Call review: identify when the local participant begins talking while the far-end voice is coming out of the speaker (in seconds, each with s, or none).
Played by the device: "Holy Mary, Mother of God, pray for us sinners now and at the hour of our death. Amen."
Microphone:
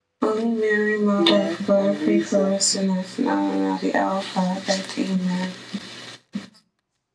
1.2 s